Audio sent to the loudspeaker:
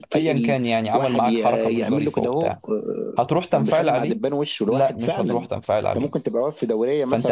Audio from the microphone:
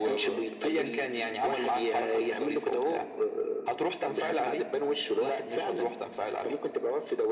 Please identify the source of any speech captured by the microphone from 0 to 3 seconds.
echo only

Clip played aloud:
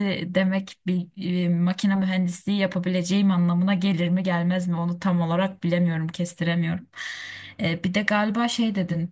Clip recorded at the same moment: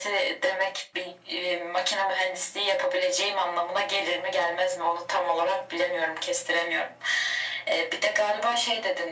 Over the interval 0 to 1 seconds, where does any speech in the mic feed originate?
echo only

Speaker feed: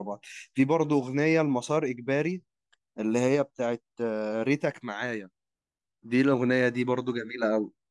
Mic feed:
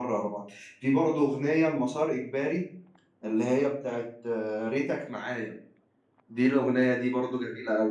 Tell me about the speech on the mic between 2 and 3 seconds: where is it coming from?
echo only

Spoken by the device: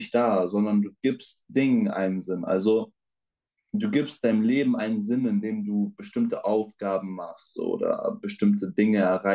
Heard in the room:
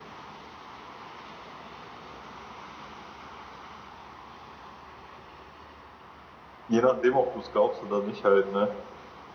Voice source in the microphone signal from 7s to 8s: user only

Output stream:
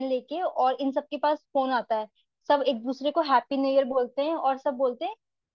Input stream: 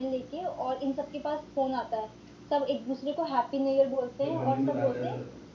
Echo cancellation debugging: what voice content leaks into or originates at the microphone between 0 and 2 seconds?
echo only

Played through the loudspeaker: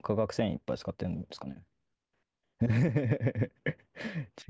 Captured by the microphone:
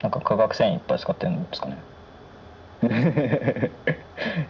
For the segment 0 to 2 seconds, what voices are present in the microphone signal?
echo only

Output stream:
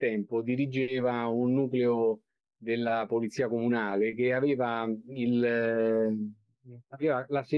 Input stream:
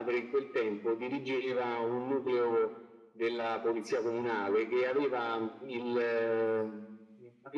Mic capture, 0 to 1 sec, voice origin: echo only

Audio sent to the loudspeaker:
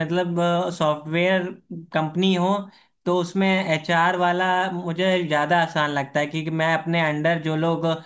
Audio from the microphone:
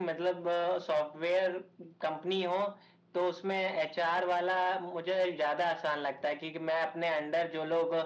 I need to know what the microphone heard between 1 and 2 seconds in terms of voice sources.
echo only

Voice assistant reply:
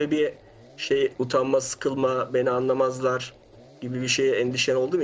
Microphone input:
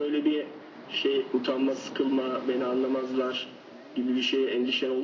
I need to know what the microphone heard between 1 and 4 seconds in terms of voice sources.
echo only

